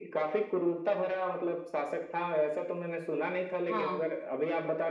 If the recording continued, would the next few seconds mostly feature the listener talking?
No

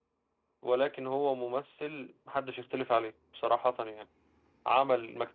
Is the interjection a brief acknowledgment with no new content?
Yes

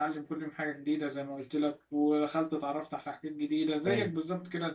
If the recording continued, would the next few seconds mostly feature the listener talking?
No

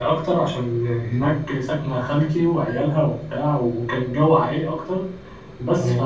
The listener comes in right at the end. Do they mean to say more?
No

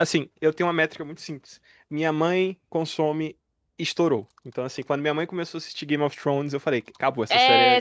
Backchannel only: No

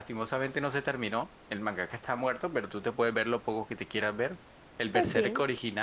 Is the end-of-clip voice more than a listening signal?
No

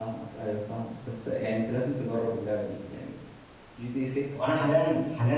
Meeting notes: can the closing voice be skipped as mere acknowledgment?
No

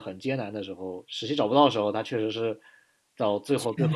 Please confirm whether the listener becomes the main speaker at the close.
No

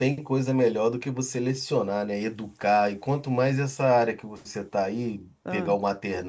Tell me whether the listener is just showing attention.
Yes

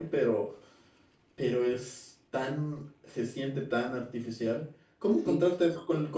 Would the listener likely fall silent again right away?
Yes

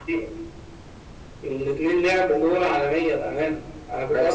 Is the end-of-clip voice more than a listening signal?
No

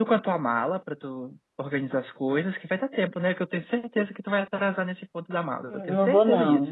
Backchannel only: No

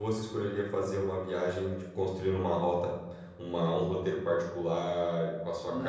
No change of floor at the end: No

